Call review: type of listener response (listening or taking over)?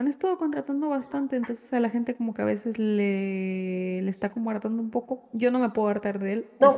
taking over